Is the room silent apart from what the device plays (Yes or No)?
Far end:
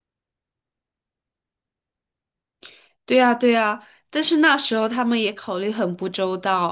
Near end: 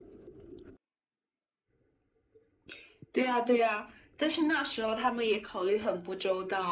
Yes